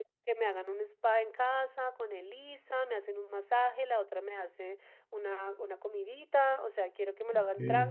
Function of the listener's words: listening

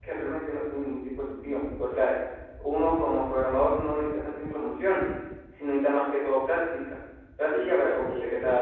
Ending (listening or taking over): taking over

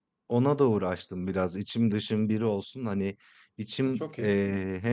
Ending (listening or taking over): listening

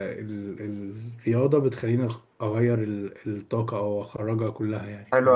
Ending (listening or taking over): taking over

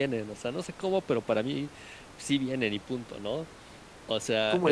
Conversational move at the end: taking over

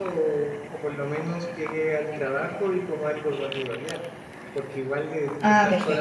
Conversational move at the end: listening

